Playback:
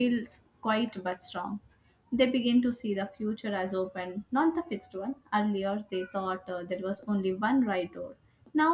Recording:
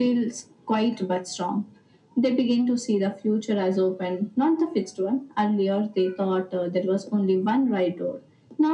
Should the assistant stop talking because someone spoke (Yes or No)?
No